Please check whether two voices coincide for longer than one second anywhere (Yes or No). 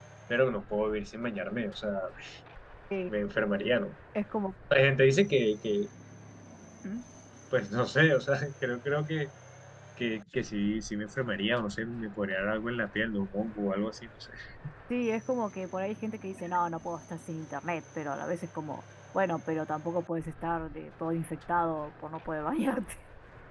No